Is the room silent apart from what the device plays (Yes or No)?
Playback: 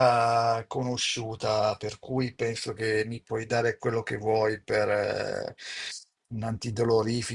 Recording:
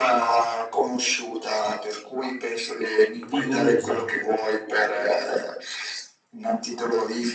No